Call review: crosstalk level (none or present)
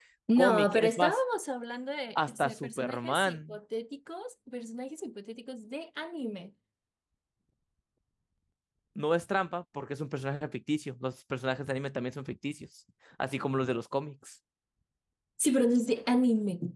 present